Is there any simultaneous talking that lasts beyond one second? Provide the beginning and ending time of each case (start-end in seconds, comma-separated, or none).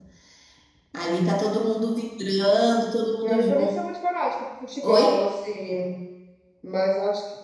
none